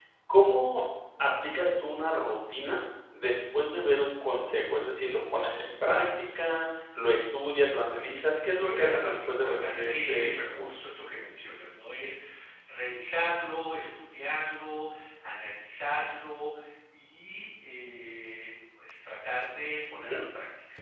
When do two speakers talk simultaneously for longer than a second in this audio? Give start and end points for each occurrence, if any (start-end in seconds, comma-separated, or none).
8.5-10.7